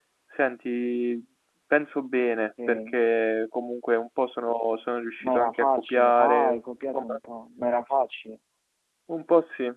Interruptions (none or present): present